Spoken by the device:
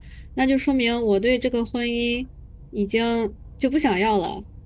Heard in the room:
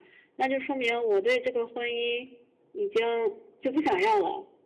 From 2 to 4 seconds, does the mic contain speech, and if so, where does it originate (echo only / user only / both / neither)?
echo only